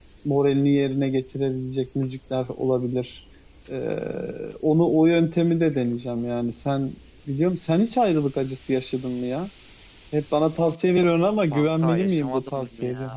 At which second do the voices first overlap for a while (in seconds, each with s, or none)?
11.5 s